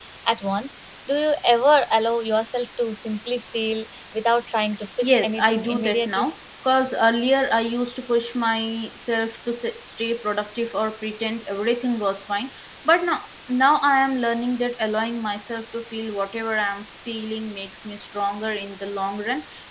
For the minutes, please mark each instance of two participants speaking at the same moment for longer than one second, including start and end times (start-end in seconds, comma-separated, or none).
5.0-6.3